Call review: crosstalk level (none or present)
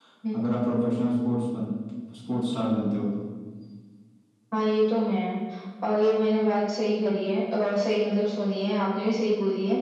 none